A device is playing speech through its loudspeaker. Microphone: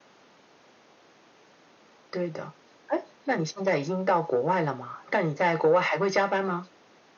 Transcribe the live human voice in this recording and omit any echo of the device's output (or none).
none